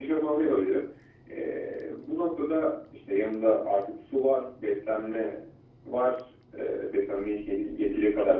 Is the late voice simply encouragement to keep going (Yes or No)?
No